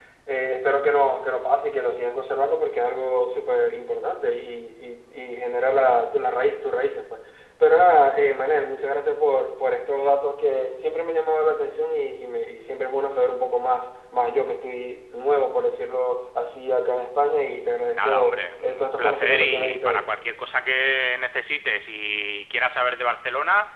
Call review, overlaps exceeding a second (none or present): present